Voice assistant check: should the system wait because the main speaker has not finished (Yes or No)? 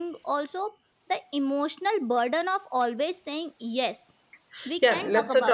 No